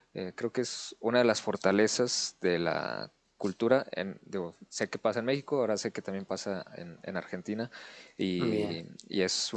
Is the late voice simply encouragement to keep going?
Yes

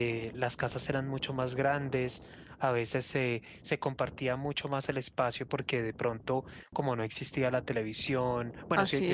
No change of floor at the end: Yes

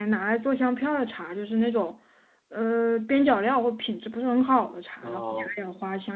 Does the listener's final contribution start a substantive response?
No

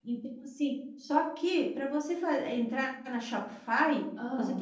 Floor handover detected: No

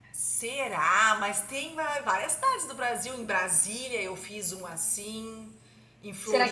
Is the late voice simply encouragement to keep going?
No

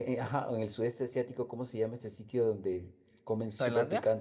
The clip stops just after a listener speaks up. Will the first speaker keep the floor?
Yes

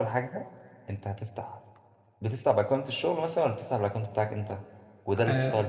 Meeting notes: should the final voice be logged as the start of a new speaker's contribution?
Yes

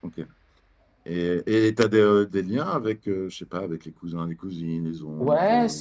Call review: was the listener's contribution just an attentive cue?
No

